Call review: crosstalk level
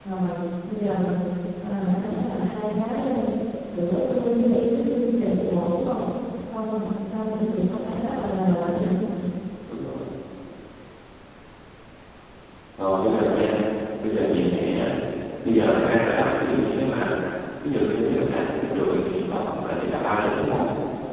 none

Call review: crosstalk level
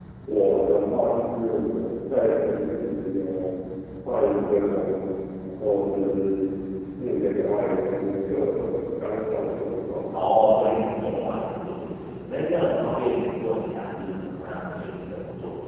none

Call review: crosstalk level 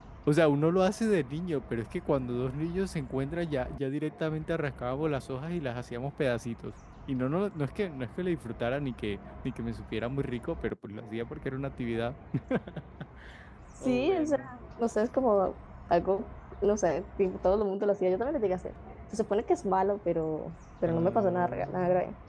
present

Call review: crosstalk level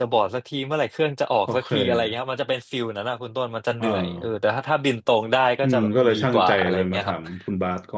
present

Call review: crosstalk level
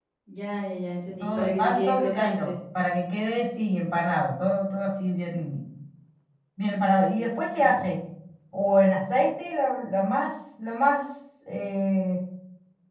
present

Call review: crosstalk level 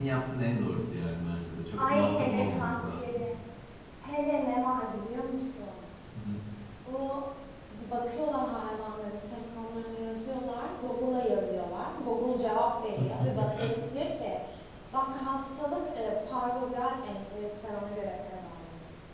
present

